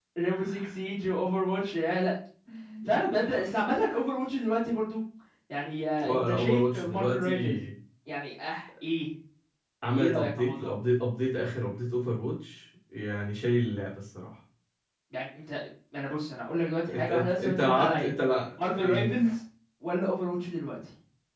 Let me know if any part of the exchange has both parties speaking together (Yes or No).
Yes